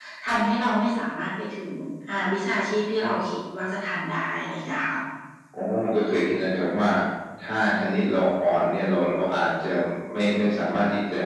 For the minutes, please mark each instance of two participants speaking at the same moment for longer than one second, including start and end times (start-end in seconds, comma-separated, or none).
none